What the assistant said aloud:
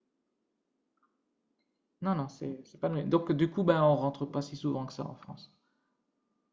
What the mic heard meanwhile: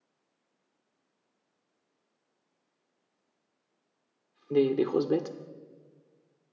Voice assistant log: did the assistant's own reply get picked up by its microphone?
No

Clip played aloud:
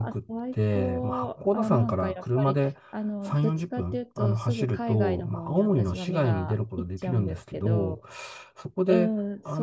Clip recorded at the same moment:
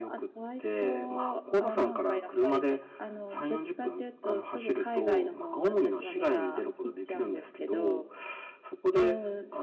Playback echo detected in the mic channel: Yes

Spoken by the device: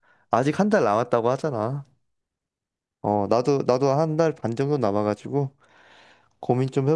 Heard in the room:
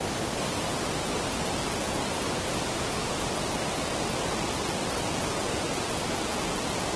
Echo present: No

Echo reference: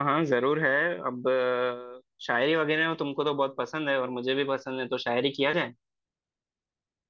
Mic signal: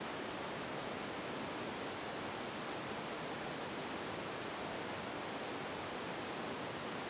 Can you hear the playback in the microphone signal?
No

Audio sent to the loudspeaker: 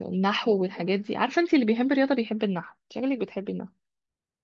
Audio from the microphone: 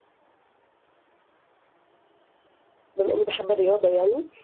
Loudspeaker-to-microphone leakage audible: No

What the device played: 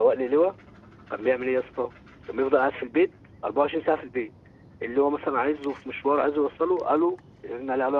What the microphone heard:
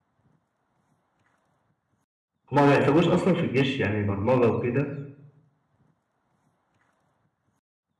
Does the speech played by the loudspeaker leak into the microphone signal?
No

